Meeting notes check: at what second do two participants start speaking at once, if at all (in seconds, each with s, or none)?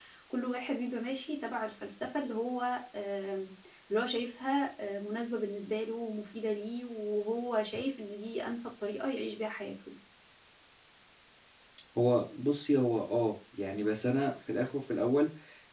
none